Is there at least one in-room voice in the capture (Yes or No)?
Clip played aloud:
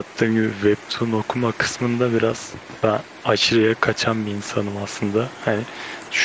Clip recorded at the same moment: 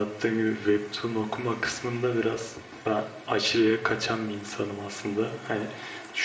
No